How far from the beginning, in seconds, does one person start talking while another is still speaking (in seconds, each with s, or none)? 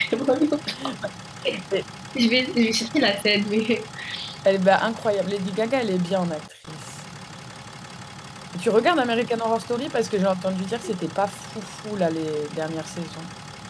none